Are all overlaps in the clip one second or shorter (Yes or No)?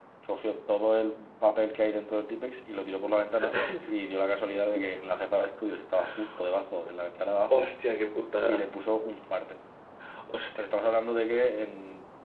Yes